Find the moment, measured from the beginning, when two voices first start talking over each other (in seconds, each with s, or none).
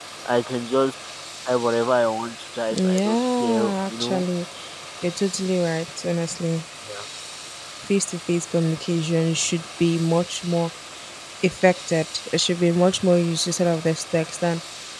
2.7 s